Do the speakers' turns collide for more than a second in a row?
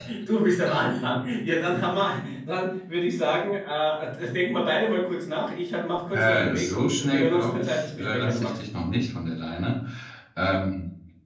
Yes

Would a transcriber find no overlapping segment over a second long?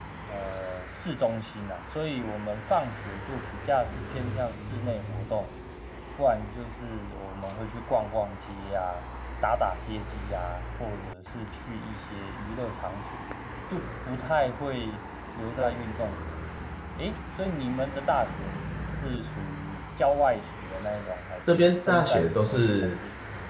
No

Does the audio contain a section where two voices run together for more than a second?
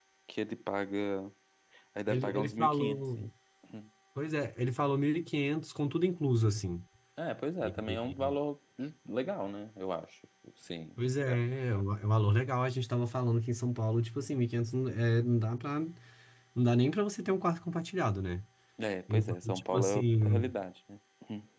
Yes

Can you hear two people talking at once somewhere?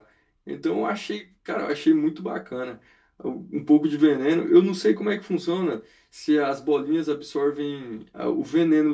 No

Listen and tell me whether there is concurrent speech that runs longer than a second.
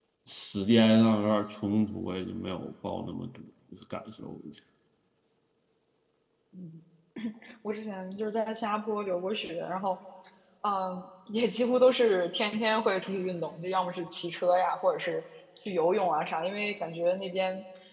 No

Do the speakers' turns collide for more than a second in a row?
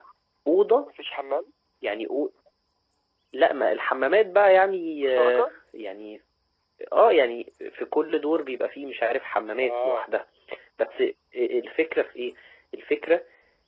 No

